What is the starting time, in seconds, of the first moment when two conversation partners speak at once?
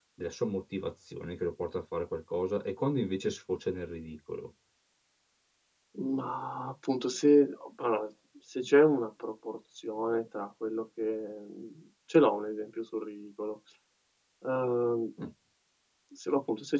none

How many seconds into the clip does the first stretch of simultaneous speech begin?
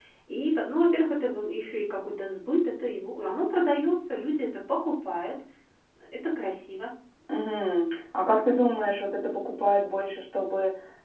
none

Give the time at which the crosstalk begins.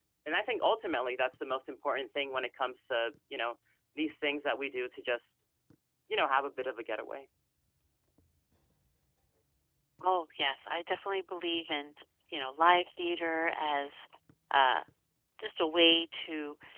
none

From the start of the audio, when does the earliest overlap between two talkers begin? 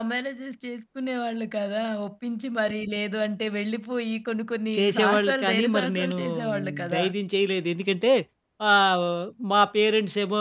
4.7 s

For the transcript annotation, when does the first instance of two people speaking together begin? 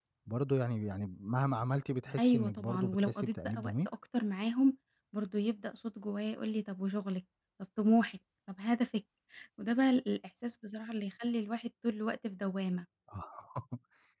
2.2 s

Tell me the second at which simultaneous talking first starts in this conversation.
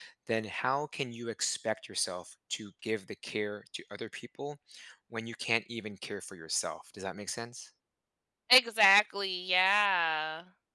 none

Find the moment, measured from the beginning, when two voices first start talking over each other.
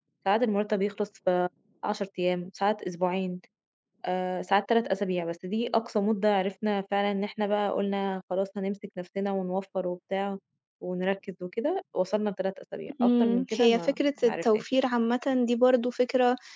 13.0 s

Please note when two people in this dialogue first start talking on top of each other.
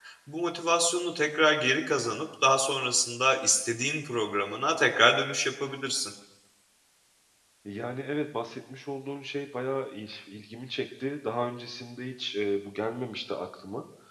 none

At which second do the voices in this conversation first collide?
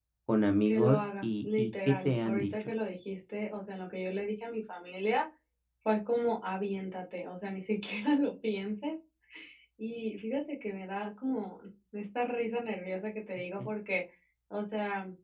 0.7 s

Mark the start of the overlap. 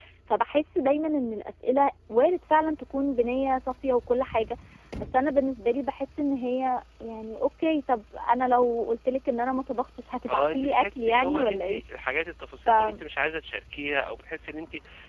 10.3 s

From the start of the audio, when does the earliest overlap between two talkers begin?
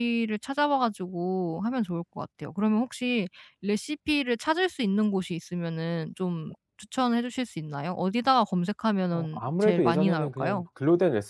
9.1 s

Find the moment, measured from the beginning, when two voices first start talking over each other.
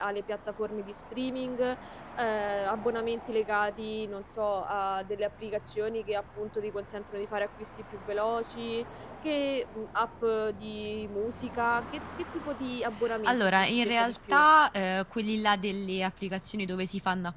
13.2 s

